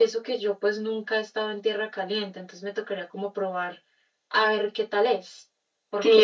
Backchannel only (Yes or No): No